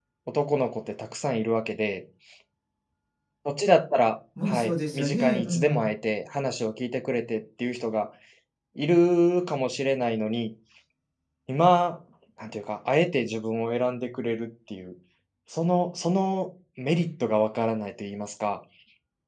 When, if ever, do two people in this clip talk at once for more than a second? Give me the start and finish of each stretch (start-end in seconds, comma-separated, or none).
4.5-5.8